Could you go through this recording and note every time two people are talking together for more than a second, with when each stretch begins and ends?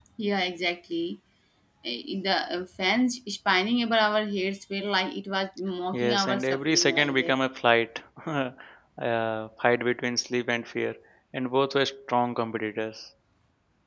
5.9-7.3

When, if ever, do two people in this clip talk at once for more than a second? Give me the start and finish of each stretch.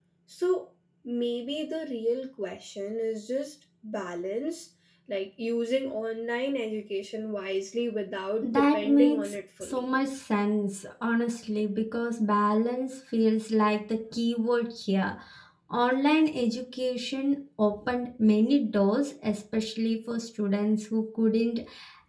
8.4-9.9

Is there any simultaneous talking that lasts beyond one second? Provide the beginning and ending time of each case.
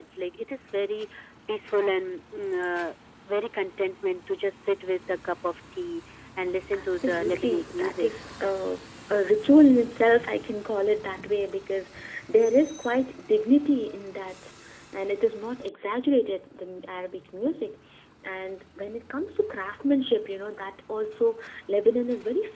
6.7-8.1

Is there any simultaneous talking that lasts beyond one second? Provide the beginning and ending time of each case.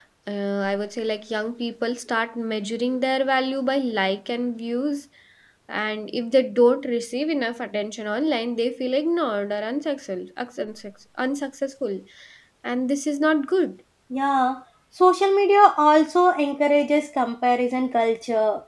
none

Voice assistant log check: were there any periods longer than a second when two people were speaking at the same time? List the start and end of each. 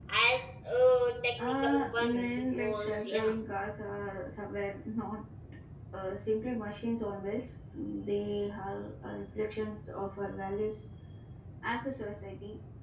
1.4-3.3

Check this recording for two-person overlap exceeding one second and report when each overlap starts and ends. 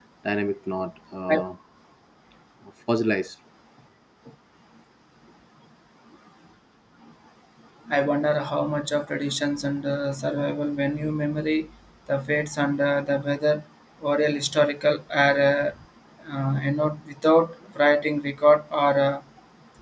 none

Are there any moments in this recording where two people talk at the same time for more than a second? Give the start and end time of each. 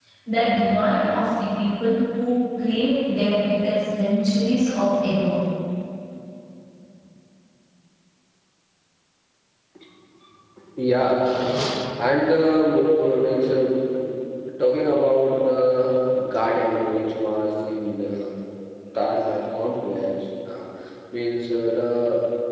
none

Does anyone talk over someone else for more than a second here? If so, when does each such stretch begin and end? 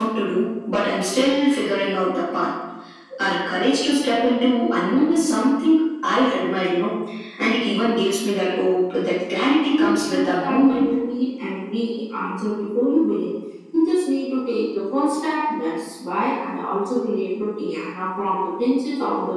9.7-10.9

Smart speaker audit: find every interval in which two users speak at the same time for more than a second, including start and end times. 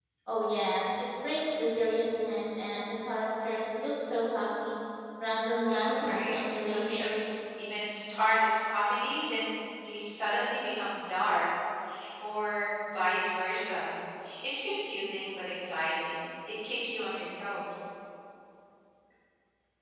5.7-7.1

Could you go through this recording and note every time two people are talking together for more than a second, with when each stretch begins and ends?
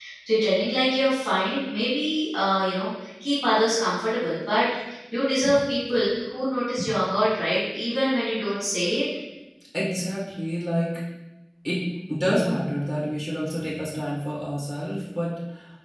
none

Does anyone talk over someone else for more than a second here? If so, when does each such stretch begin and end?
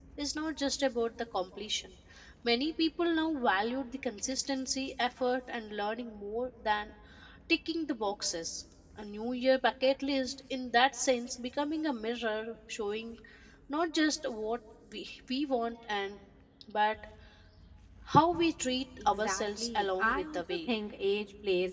19.0-20.7

